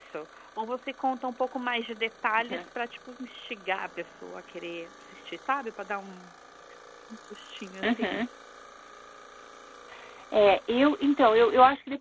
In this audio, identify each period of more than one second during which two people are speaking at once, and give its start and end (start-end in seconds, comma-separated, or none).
none